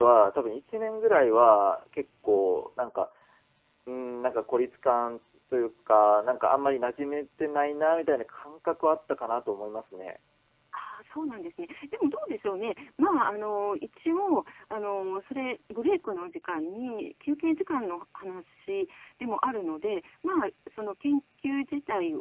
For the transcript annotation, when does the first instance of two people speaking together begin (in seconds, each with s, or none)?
none